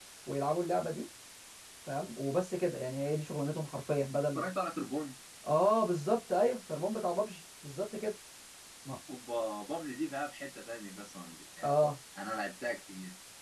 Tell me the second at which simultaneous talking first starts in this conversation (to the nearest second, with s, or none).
none